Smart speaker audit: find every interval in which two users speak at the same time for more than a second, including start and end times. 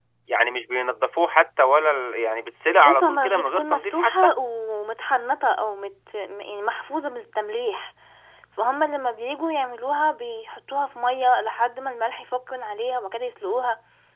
2.8-4.1

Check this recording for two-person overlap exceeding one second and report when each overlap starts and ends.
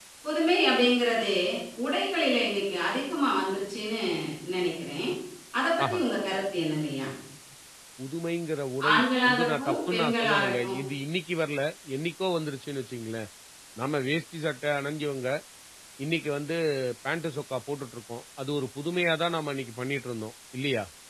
8.9-10.8

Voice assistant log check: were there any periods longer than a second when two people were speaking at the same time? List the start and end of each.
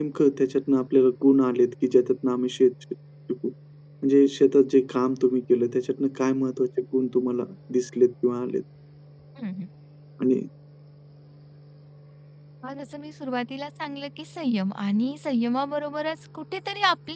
none

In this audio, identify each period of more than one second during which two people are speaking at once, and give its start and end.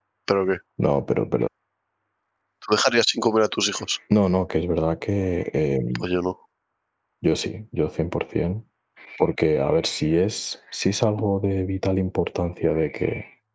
none

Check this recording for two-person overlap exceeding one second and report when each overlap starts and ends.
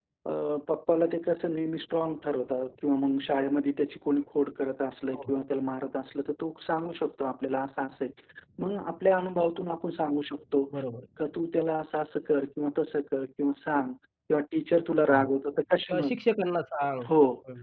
none

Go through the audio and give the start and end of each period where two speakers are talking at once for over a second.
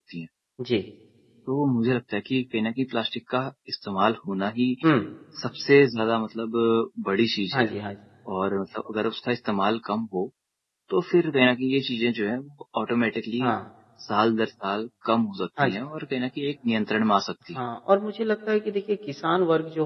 none

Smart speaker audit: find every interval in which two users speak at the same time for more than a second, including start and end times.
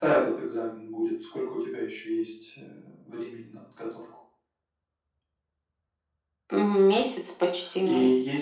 none

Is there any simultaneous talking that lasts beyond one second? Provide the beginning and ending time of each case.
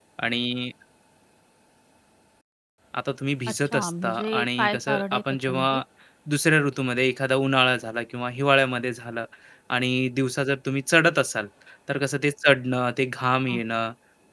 3.7-5.8

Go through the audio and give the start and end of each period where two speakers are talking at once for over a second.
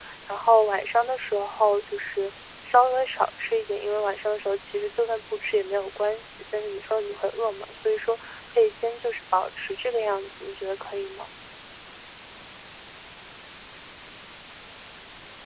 none

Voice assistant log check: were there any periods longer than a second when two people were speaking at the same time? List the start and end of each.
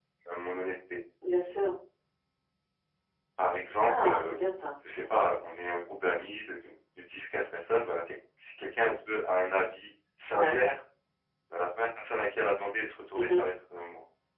none

